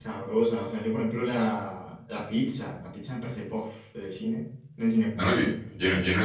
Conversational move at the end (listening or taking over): taking over